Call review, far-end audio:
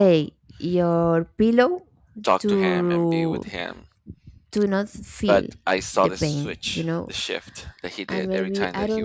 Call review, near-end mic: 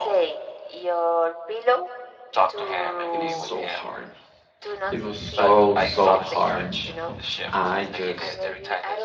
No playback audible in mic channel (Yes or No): No